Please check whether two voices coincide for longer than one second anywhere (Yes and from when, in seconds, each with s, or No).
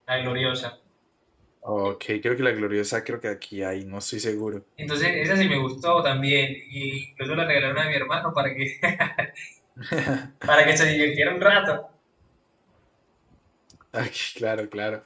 No